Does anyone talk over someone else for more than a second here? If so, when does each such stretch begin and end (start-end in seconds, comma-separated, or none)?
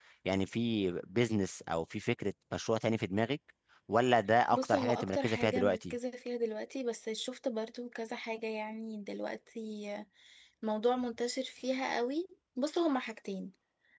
4.5-6.0